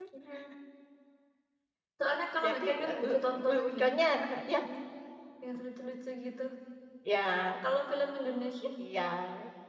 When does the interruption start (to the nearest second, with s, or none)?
2 s